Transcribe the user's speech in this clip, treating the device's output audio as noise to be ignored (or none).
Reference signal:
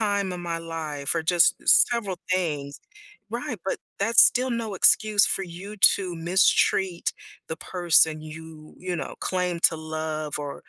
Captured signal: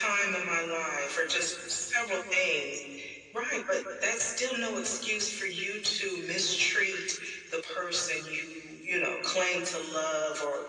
none